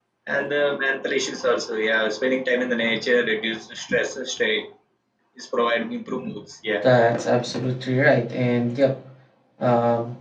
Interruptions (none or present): none